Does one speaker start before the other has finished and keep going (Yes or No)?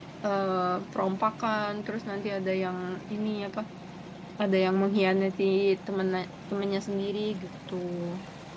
No